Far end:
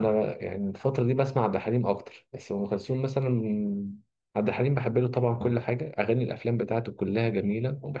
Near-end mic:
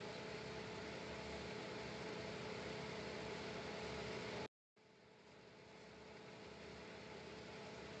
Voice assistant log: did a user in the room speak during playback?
No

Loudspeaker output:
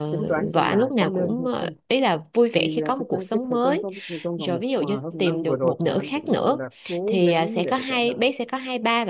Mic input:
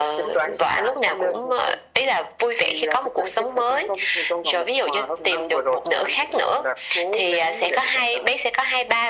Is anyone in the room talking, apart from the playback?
No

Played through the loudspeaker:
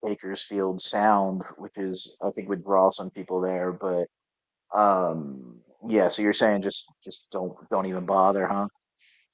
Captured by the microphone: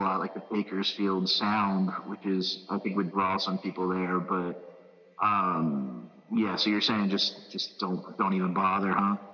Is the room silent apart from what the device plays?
Yes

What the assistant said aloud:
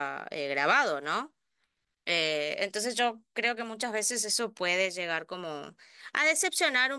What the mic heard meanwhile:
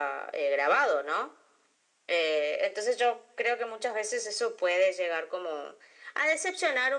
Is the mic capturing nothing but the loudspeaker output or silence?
Yes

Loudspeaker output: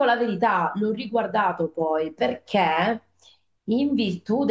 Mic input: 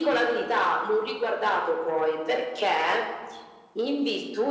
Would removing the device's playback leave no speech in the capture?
Yes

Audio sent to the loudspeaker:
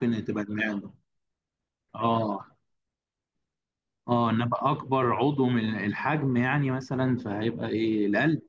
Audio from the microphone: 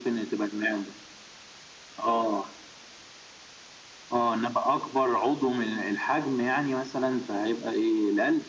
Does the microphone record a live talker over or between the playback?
No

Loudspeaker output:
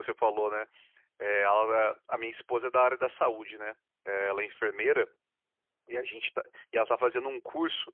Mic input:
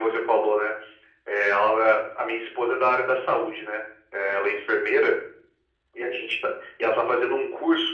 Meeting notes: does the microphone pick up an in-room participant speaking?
No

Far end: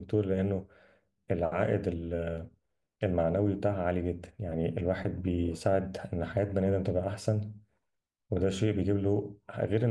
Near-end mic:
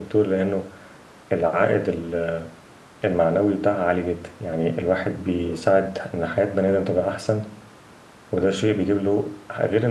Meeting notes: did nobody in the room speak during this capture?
Yes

